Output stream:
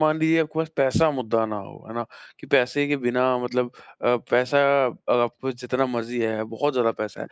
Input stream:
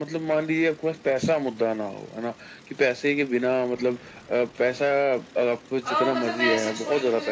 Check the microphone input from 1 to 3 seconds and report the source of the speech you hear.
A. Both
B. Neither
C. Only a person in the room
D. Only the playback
D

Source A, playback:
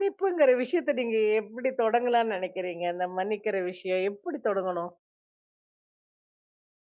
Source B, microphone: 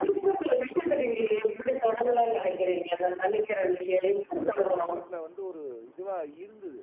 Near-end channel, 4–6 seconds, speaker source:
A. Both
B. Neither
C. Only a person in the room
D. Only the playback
A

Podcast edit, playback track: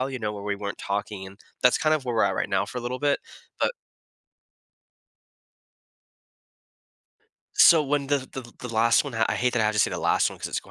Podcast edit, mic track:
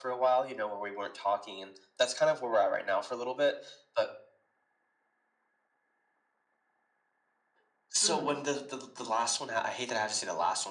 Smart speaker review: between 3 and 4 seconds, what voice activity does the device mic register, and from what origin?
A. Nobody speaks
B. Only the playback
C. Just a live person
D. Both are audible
B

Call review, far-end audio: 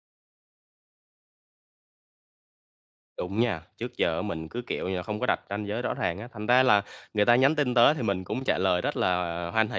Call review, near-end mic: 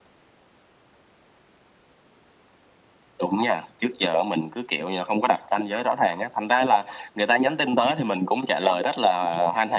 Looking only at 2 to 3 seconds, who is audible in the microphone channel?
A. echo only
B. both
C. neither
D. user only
C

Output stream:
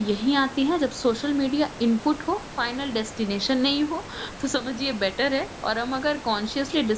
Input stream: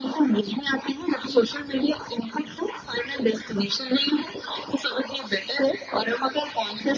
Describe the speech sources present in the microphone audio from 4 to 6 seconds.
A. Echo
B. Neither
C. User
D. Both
A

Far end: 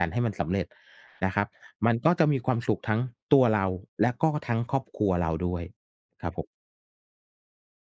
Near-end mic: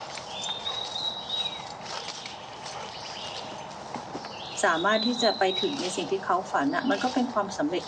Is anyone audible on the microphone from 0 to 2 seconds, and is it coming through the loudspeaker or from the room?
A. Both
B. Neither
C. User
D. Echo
B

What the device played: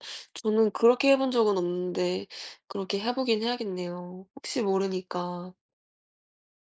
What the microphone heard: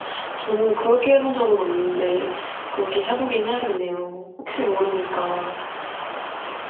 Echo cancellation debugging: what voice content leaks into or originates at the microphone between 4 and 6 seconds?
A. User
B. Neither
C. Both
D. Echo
D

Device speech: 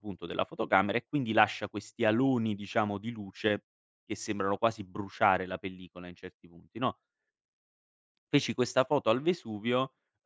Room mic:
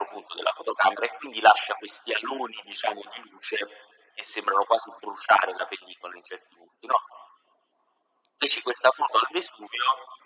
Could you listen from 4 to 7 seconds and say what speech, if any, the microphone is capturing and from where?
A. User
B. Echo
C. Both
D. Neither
B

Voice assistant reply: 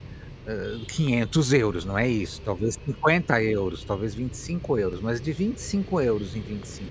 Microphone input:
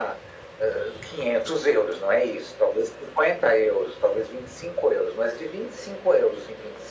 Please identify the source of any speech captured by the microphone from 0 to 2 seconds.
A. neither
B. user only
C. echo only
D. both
C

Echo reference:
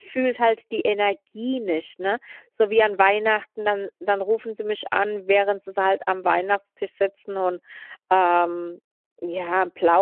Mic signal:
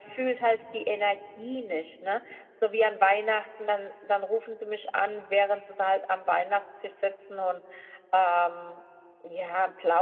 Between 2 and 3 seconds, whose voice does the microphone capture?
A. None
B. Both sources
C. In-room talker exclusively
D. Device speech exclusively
D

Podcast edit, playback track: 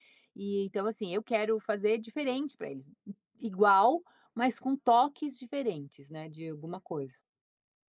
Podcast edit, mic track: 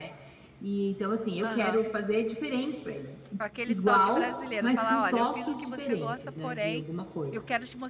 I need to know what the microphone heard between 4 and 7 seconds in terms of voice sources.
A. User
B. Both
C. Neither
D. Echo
B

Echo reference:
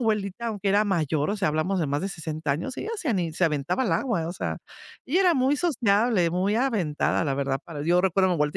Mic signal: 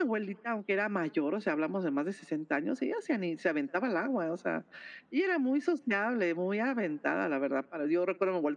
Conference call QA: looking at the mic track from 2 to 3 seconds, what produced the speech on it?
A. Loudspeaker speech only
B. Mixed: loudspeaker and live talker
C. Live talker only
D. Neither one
A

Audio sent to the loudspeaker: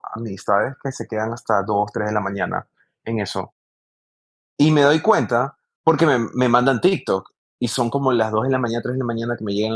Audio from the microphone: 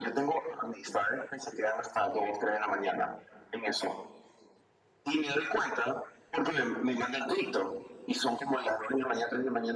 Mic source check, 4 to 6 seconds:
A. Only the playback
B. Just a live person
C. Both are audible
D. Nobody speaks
A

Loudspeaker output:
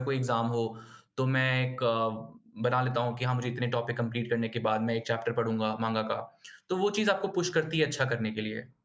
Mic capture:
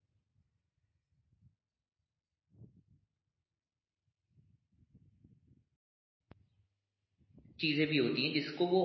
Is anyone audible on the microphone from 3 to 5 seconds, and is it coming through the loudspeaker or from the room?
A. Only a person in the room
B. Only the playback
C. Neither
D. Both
C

